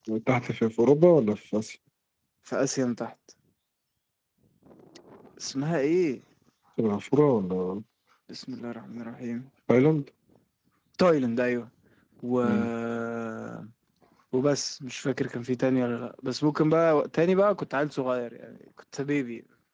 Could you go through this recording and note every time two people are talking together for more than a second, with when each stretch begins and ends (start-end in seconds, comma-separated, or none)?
none